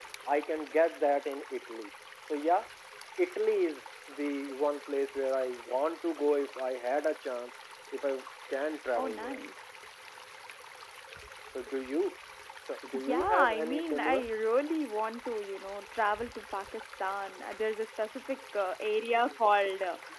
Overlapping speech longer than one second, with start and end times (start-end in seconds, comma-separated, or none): 12.9-14.2